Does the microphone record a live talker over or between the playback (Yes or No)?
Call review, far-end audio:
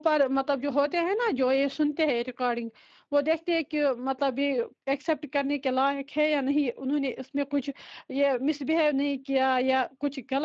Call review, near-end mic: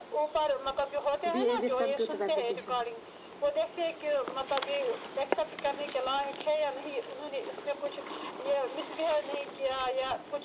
Yes